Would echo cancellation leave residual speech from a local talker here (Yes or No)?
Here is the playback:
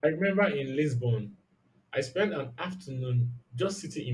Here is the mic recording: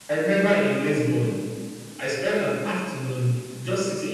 No